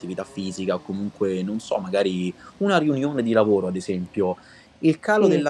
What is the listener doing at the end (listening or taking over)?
listening